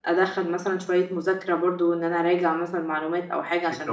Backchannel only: Yes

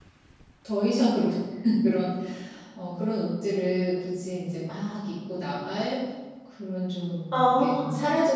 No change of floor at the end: Yes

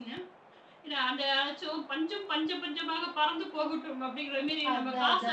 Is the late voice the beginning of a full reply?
No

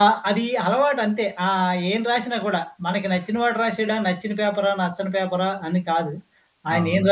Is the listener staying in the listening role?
Yes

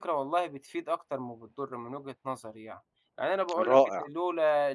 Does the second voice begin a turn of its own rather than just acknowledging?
No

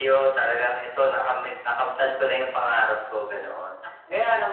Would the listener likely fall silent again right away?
Yes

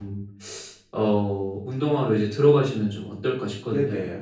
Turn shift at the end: Yes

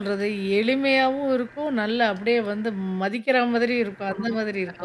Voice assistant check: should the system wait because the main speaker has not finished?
No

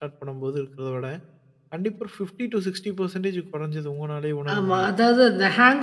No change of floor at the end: No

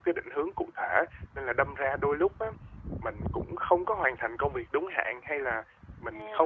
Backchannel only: Yes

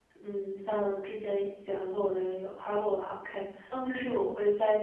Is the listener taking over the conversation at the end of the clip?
No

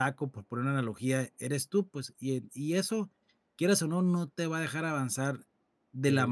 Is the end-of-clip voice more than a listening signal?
No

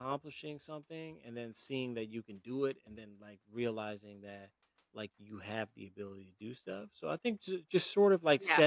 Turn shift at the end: No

